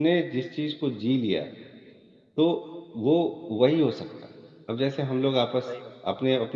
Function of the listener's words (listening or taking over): listening